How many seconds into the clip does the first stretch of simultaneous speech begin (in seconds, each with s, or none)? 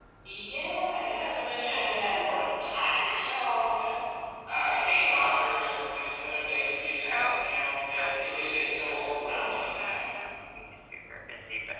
7.0 s